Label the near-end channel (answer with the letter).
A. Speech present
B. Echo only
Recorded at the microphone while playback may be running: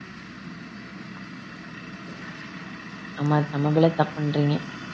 A